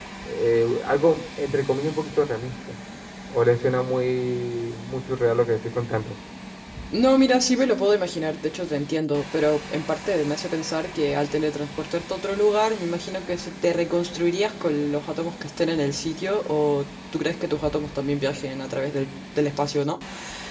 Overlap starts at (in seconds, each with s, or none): none